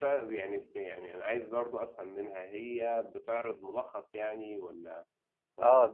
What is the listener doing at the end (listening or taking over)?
taking over